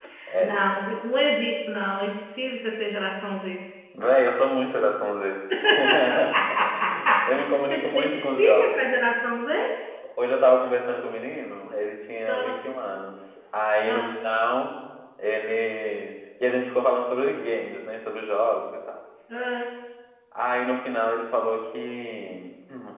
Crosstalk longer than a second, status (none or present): present